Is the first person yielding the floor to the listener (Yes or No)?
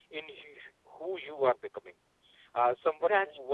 No